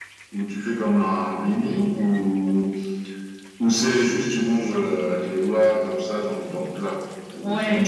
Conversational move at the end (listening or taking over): taking over